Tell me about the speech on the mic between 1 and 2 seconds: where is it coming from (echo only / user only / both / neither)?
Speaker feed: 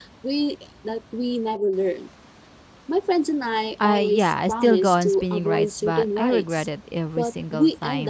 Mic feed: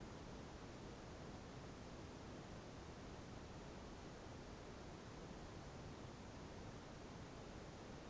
neither